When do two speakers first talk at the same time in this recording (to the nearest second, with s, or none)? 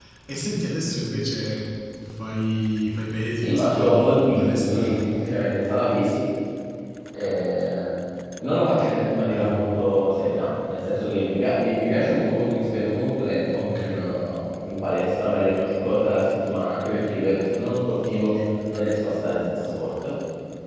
3 s